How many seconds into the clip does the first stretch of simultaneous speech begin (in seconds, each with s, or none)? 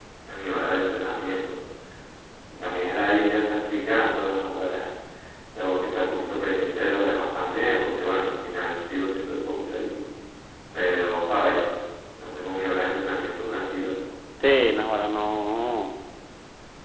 none